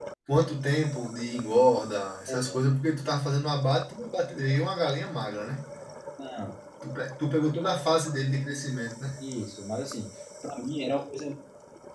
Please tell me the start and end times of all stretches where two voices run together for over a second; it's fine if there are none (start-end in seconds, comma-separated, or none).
none